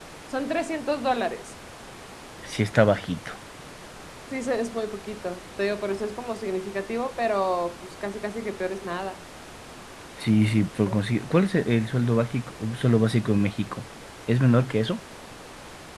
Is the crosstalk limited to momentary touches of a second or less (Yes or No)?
Yes